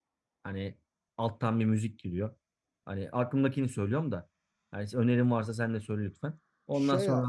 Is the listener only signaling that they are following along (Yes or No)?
No